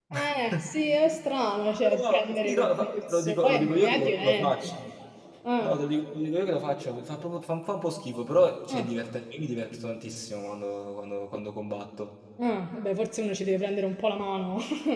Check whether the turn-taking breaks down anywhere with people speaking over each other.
Yes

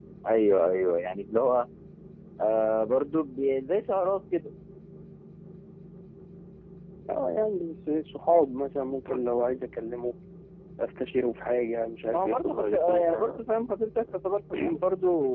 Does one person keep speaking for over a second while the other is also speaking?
Yes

